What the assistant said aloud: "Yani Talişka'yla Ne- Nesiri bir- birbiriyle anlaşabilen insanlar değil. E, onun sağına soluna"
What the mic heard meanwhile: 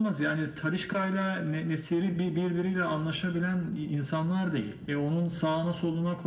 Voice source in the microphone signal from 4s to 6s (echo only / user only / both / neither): echo only